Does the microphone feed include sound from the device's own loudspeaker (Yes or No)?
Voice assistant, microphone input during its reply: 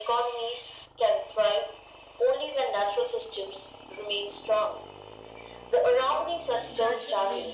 Yes